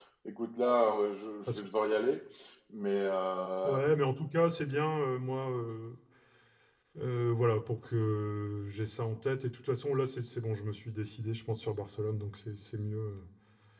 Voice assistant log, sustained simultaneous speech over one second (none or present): none